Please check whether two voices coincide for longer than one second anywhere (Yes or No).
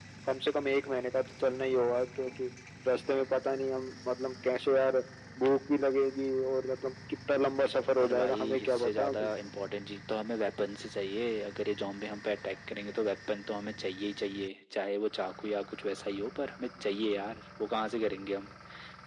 Yes